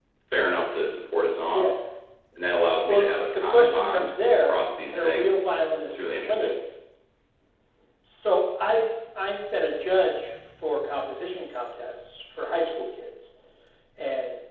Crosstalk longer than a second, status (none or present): present